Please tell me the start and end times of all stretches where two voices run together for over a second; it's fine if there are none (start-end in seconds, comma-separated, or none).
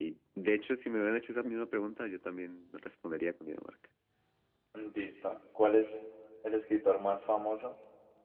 none